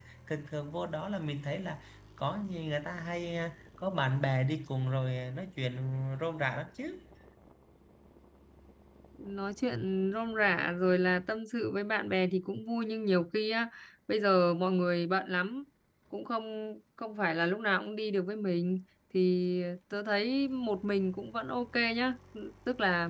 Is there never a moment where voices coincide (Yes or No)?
Yes